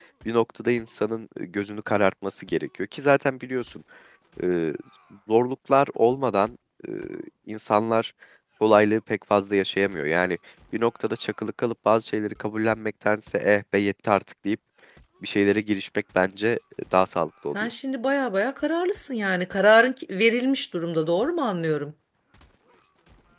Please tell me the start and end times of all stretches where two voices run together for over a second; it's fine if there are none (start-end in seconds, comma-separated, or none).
none